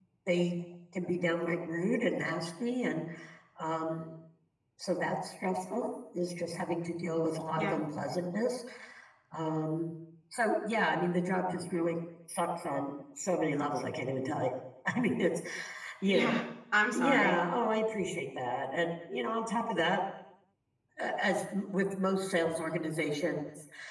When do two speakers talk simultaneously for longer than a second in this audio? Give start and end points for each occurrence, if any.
none

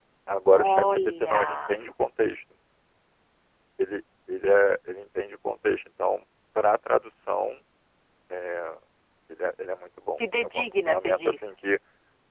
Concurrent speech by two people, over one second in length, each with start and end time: 0.5-1.7, 10.2-11.5

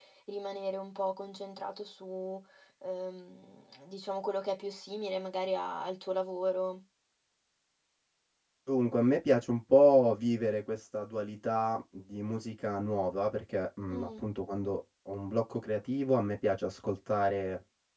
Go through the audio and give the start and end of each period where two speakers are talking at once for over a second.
none

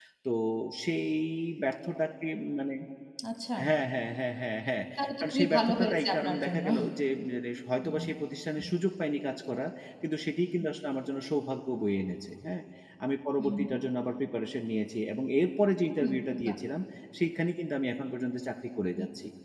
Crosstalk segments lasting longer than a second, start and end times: 5.2-6.7

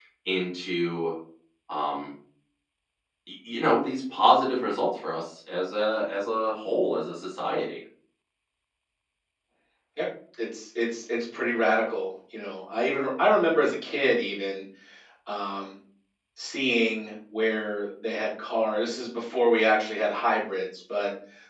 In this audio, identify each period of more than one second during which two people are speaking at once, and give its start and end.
none

